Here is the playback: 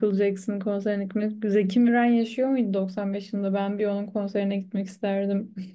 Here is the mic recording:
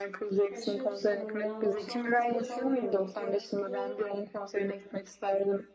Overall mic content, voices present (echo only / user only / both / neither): both